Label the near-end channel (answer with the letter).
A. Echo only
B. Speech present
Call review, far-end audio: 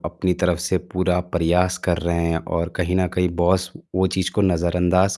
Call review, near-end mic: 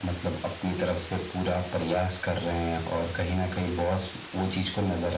A